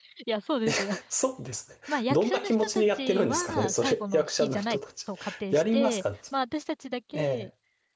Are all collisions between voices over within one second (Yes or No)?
No